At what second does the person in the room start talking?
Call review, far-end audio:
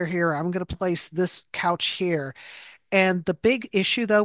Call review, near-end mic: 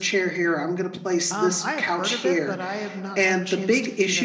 1.3 s

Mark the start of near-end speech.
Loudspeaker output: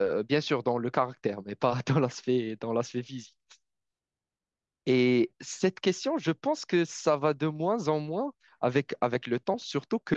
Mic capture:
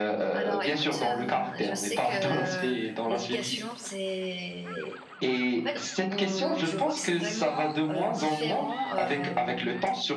0.3 s

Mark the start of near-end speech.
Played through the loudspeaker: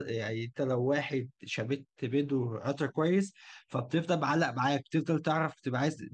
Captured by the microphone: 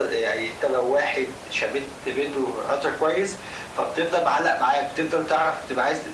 none

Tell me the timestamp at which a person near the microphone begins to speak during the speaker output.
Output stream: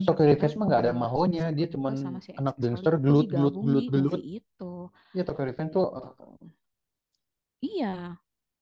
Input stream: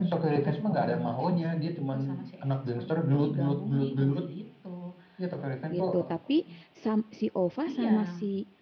5.7 s

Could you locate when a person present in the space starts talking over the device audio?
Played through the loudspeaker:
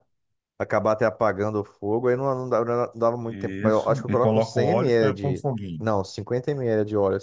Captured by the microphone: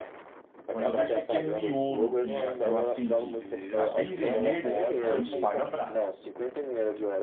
0.7 s

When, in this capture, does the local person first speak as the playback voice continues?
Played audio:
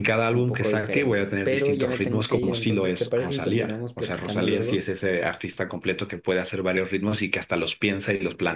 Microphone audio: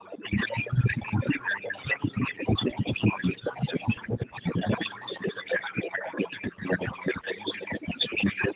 none

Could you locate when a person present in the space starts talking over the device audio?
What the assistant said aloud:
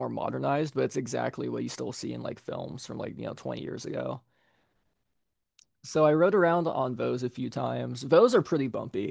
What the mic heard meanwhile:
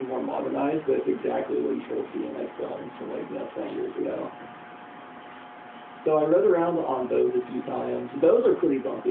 none

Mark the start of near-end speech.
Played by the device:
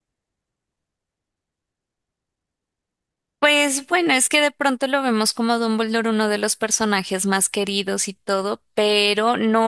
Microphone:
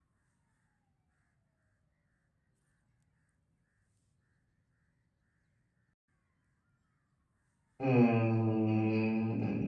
7.8 s

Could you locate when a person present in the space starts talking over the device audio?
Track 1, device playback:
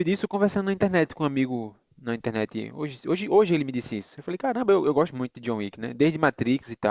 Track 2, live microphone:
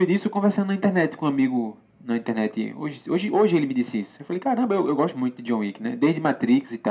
none

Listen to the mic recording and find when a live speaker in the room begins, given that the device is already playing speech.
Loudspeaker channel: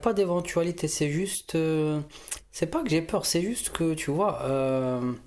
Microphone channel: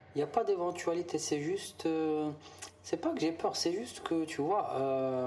none

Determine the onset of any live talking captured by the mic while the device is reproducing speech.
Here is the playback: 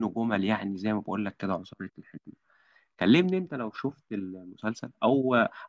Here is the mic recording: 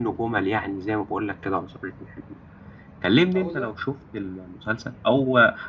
3.4 s

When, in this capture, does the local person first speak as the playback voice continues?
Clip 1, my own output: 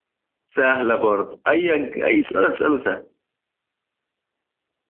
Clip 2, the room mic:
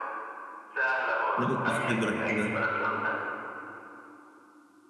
1.4 s

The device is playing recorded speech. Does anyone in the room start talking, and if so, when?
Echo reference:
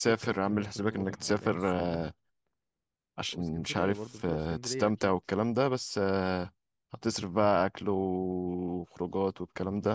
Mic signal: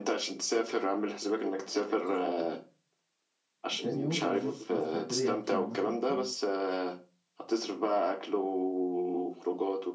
3.7 s

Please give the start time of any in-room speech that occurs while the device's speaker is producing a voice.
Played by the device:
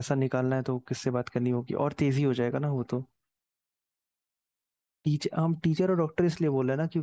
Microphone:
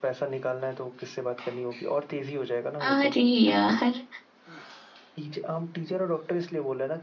2.9 s

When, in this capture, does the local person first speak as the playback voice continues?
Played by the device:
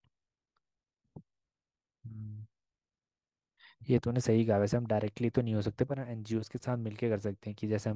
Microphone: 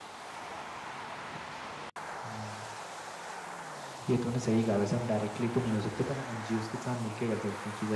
none

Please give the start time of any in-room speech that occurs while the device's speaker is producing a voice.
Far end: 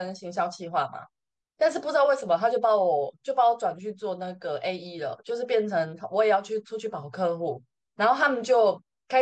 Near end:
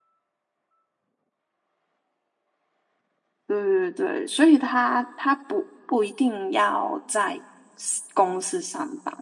3.5 s

